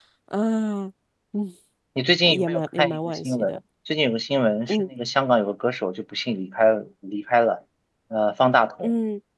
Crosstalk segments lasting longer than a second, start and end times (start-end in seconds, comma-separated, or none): 2.2-3.6